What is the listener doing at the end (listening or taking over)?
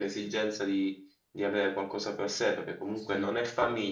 listening